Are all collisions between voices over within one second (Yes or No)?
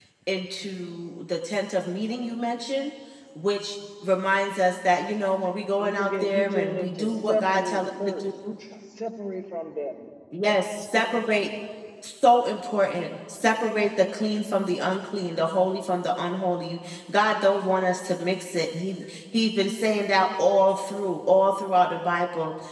No